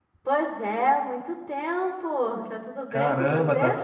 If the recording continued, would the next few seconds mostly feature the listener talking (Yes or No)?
Yes